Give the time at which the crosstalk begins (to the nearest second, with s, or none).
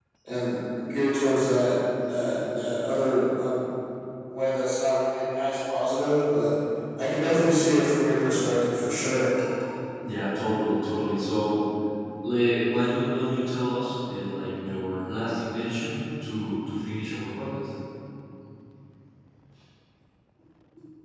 none